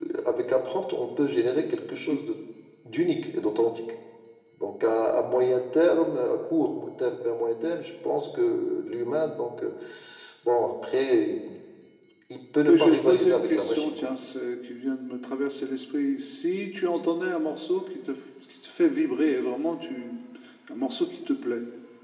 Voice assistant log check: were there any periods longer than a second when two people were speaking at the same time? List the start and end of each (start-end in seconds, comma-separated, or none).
12.7-14.1